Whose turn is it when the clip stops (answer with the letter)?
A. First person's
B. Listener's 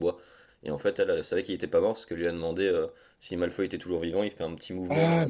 B